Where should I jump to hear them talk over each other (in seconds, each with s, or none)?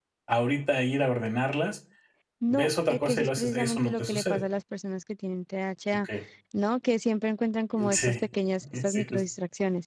2.5 s